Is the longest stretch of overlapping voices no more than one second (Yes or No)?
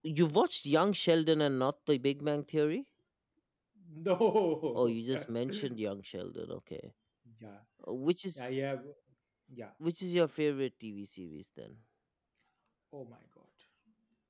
Yes